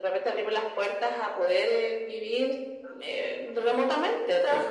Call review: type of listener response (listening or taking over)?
listening